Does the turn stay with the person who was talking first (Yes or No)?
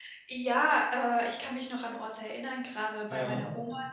Yes